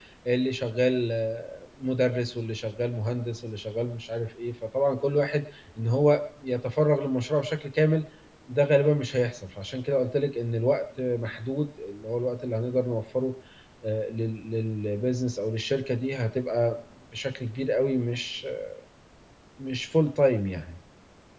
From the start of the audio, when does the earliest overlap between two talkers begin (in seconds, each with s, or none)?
none